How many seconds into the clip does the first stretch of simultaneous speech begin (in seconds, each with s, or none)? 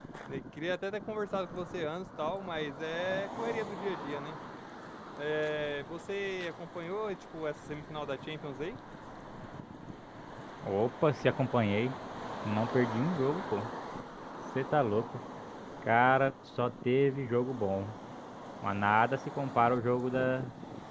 none